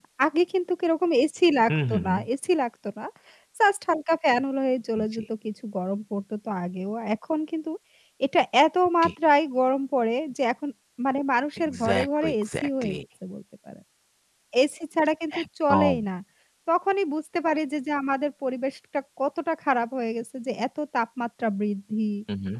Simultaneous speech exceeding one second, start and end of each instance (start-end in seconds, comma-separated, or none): 11.6-13.0